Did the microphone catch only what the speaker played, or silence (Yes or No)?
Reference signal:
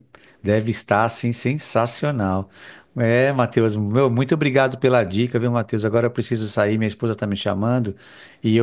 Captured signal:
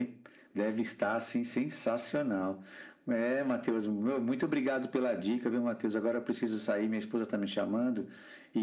Yes